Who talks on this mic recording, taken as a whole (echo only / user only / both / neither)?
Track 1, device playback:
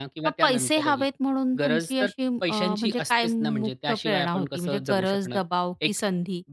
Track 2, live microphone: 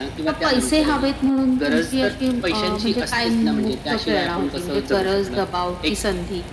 echo only